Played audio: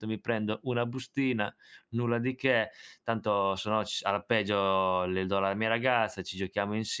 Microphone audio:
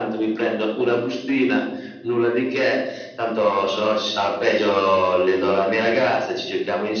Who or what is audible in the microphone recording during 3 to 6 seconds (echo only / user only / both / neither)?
echo only